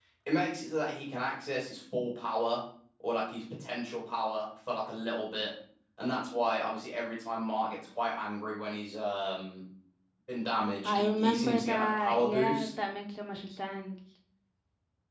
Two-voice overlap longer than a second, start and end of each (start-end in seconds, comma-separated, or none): 10.8-12.7